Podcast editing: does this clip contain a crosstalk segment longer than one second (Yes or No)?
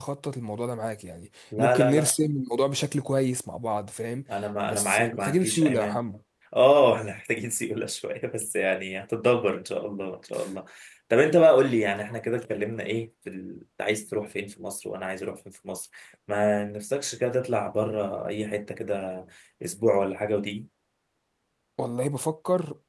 Yes